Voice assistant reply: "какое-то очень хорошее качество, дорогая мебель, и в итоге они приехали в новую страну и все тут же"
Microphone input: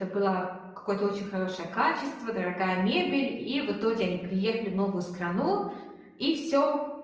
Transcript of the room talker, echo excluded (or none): none